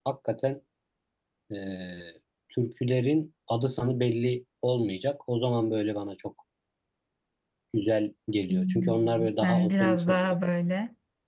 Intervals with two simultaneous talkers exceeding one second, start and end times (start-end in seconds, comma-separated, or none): 8.5-10.4